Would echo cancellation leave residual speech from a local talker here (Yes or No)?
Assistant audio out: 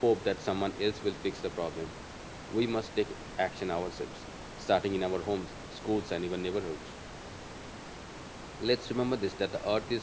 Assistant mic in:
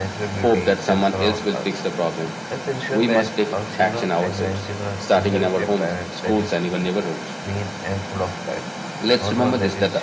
Yes